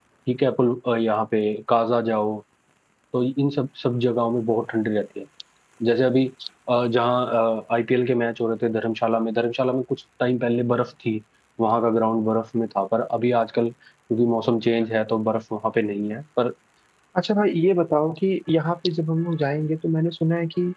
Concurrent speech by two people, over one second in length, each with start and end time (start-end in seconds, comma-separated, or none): none